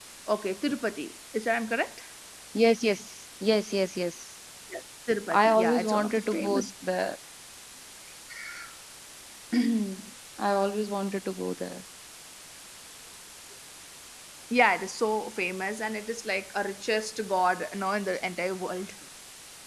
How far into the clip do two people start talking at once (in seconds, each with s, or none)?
5.3 s